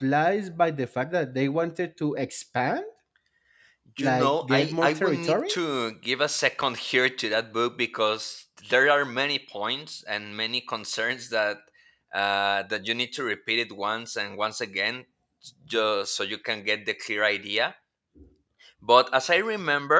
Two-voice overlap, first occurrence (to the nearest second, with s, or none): 4 s